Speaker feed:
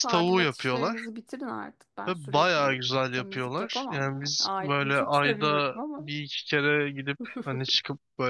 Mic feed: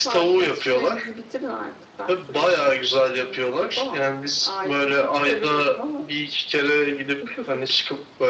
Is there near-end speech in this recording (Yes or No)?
No